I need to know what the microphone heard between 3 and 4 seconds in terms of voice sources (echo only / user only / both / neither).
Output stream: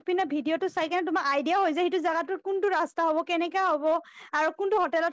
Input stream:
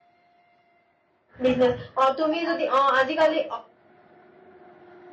user only